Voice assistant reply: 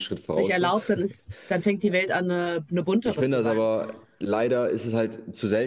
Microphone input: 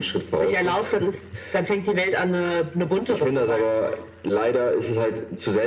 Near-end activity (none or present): none